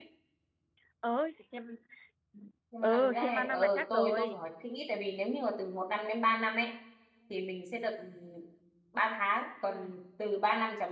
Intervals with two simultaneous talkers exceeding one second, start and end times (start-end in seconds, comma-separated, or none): 2.8-4.4